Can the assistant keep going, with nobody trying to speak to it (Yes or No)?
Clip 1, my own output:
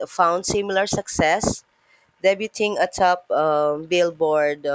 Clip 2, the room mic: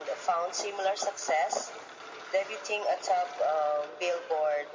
Yes